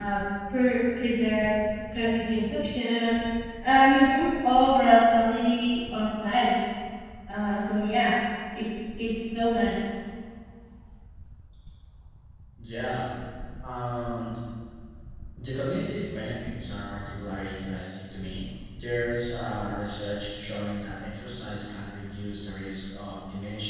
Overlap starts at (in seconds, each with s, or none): none